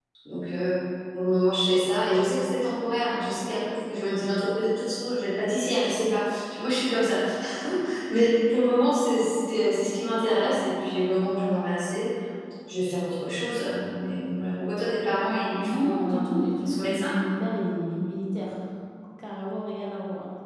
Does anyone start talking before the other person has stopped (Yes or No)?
Yes